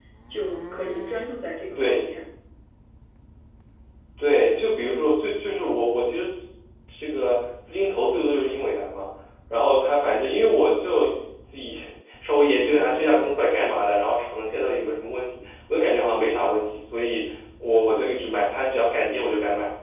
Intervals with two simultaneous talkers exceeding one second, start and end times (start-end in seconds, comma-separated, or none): none